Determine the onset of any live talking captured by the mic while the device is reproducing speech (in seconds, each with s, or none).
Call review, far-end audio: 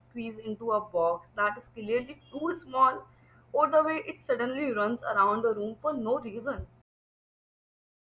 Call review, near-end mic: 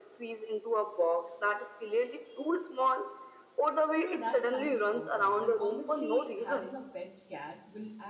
3.9 s